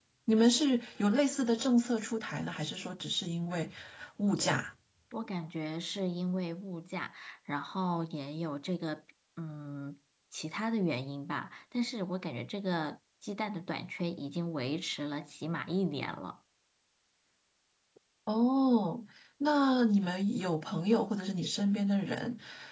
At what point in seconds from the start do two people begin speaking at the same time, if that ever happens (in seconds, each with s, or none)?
none